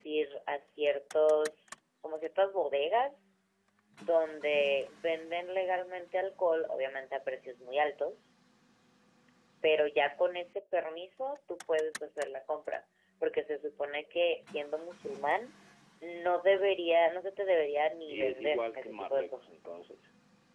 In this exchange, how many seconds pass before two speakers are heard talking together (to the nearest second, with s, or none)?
18 s